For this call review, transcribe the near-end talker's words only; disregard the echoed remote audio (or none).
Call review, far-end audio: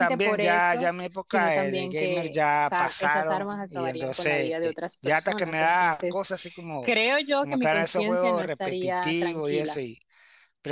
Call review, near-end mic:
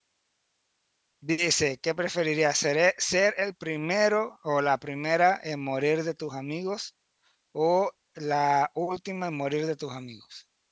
Dice, ¿qué preferirías? ¿Ser, e, ser el primero o la primera en morir de tus amigos o la última en morir de tus amigos?